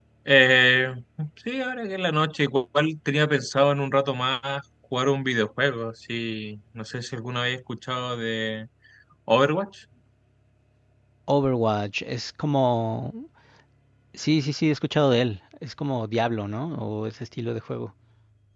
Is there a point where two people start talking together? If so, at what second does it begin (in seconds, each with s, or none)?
none